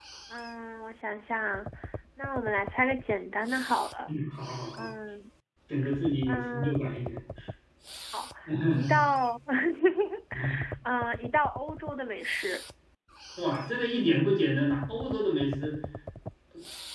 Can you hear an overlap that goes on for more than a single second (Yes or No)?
No